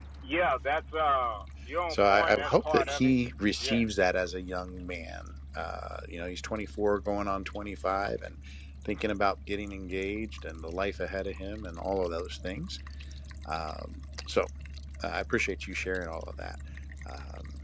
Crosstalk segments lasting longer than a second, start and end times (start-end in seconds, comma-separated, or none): 1.9-3.1